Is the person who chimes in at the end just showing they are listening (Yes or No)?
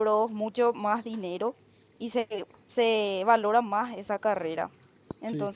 Yes